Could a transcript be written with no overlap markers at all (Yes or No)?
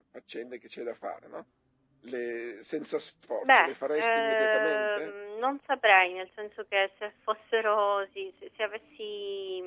No